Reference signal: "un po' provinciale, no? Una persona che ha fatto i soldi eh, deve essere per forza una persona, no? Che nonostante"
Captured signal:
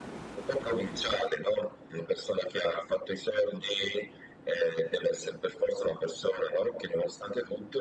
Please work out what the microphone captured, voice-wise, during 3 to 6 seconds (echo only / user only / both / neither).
echo only